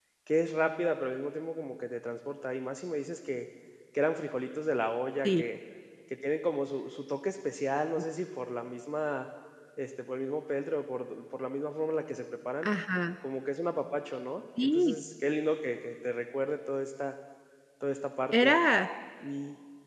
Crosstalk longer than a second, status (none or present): none